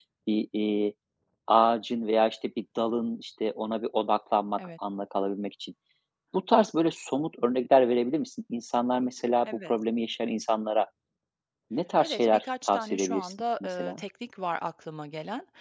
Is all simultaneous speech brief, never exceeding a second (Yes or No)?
No